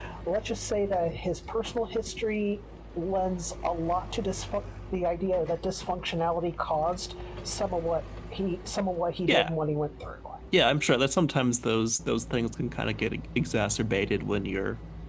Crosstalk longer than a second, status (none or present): none